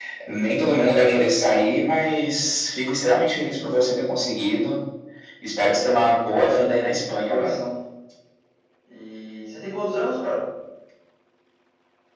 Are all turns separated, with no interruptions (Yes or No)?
No